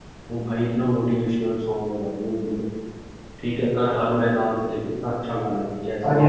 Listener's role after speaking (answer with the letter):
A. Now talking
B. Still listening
A